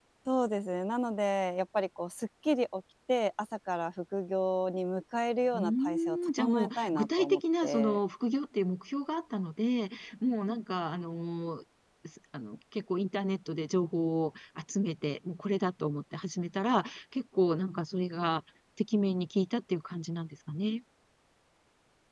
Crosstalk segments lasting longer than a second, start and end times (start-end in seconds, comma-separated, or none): 5.5-8.0